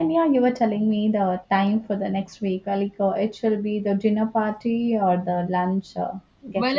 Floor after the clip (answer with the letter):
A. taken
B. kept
A